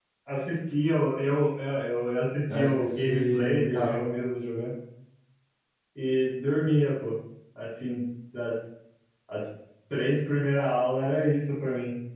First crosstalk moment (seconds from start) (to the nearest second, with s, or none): 3 s